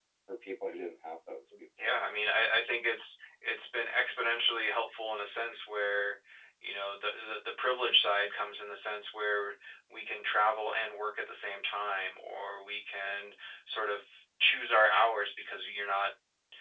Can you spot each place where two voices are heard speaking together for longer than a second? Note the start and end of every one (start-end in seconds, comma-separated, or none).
none